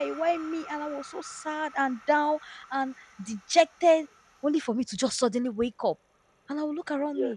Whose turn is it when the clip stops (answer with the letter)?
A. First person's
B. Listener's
A